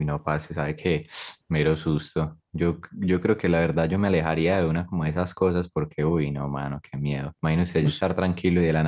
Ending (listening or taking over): listening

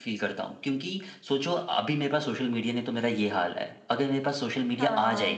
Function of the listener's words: listening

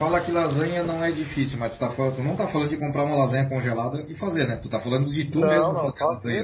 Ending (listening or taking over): taking over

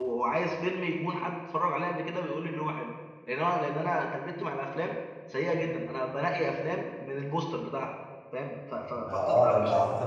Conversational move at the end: taking over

